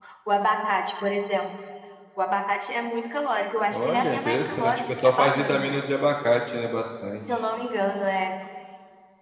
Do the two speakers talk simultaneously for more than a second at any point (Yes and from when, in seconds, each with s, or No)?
Yes, from 3.7 s